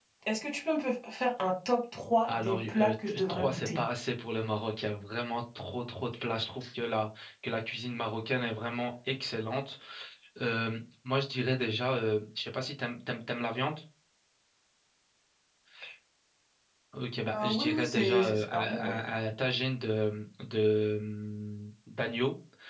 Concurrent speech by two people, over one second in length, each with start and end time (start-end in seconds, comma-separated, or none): 2.3-3.8, 17.4-18.9